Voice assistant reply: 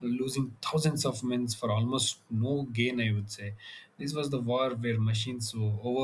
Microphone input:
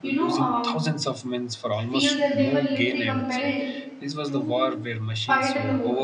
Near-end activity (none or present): present